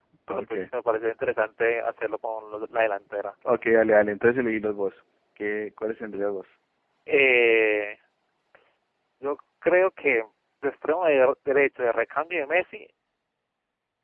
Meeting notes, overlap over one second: none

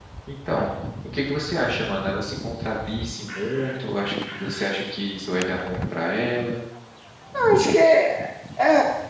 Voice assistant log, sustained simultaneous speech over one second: none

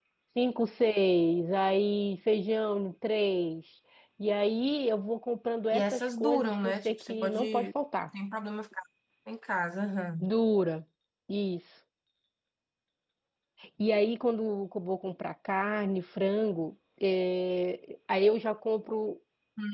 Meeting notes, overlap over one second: present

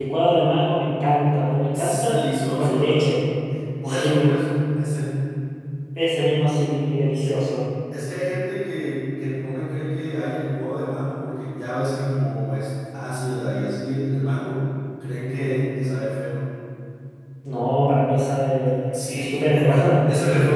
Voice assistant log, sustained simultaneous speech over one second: present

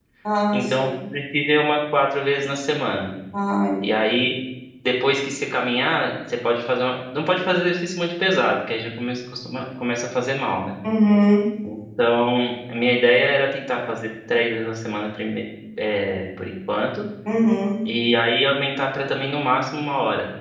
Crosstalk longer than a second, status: none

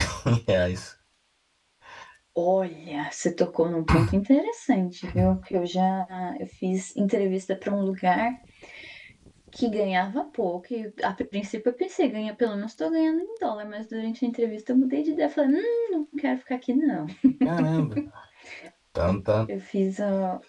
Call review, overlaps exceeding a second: none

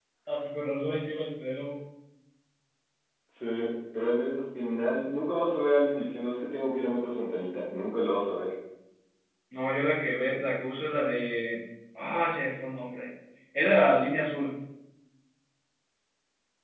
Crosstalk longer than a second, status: none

